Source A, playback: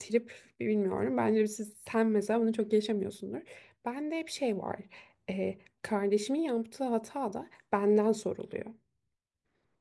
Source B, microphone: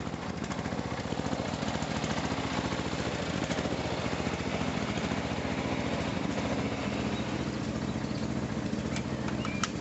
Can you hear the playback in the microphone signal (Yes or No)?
No